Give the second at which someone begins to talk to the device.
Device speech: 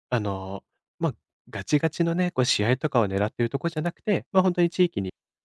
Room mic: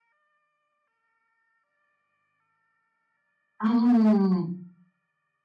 4 s

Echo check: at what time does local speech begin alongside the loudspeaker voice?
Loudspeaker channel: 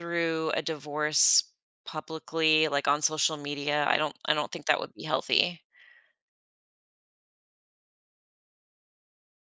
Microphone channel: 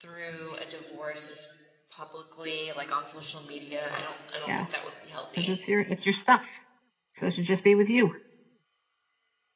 4 s

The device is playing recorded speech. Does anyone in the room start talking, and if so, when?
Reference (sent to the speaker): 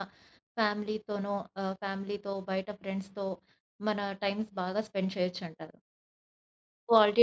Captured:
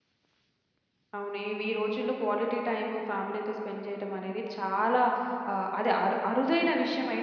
1 s

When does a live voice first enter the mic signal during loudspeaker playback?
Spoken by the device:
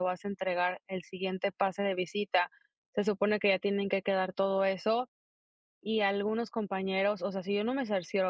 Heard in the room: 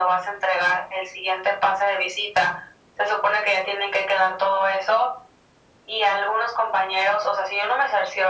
none

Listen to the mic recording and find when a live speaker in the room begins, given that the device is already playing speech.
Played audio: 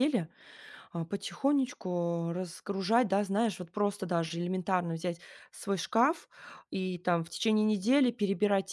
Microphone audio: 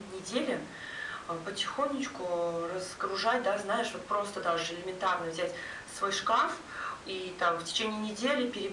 none

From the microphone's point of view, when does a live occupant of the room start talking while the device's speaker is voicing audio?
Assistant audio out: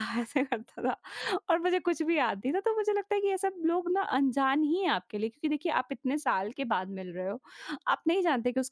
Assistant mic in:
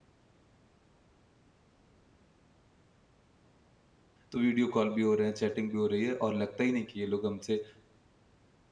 4 s

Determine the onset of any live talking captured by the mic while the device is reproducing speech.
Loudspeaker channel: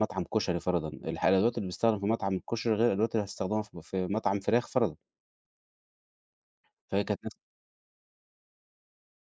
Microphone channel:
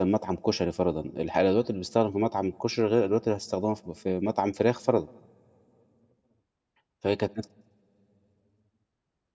none

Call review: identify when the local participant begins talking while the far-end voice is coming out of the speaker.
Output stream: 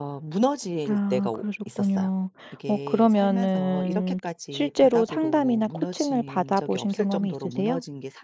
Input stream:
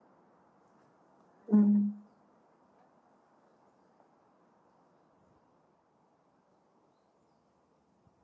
2 s

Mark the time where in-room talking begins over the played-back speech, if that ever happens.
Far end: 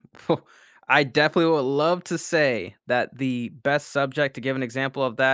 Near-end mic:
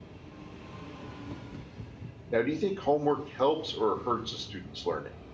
2 s

